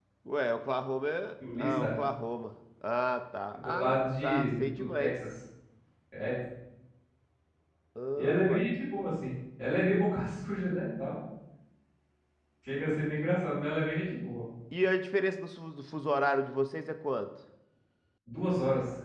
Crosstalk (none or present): present